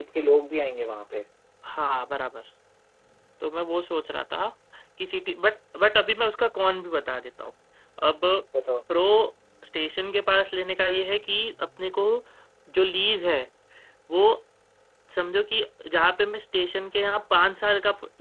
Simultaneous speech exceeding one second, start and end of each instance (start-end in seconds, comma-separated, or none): none